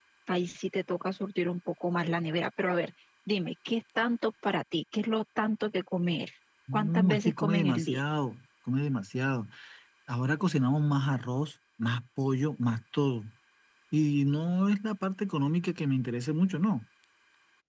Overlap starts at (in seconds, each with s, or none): 6.7 s